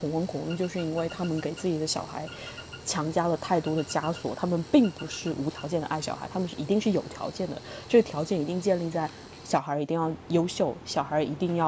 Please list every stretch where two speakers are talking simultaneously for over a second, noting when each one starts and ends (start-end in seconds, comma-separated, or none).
none